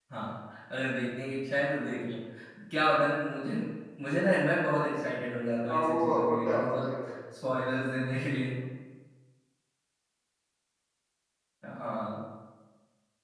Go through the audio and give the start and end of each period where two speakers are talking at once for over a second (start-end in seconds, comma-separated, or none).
5.7-7.1